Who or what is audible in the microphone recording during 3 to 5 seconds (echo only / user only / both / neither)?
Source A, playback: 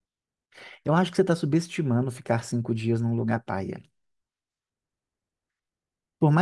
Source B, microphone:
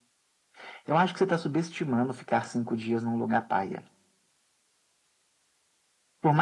echo only